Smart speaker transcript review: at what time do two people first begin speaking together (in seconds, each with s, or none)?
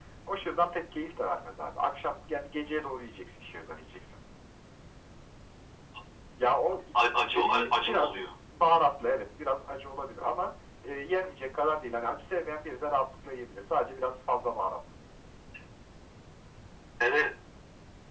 7.0 s